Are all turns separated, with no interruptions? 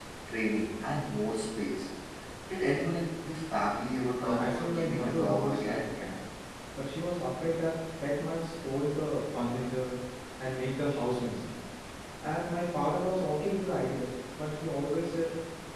No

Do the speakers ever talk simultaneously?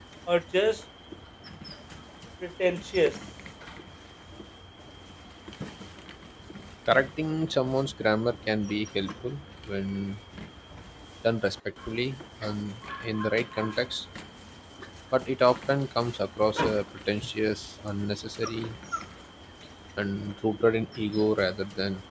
No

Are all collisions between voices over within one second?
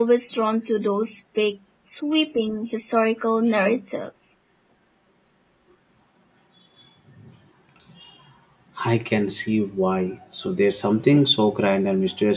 Yes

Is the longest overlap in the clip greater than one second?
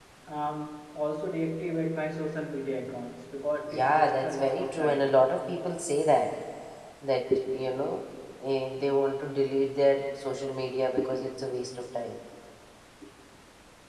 Yes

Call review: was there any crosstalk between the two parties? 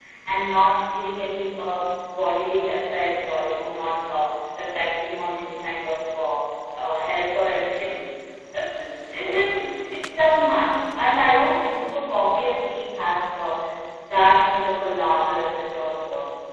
No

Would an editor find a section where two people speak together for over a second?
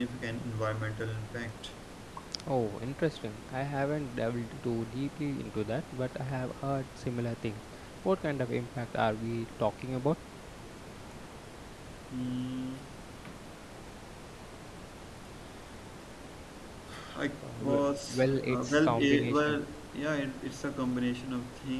Yes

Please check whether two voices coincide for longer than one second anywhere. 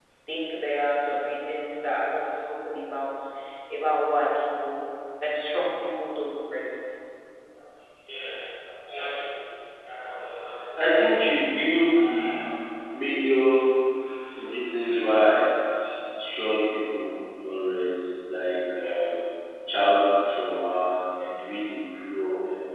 No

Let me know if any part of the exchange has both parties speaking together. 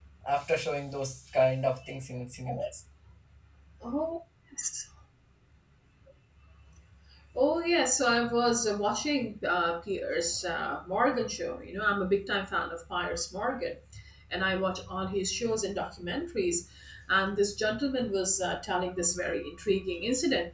No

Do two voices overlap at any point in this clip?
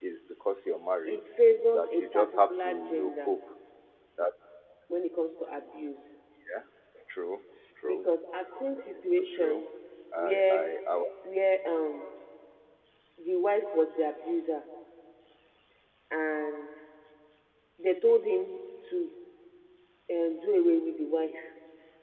Yes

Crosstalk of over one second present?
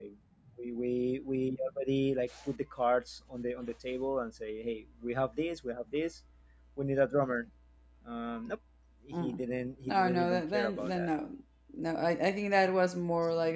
Yes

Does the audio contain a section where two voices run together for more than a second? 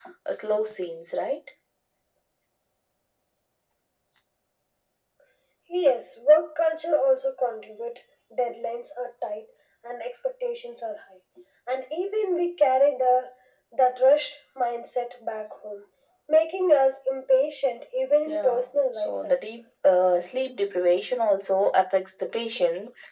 Yes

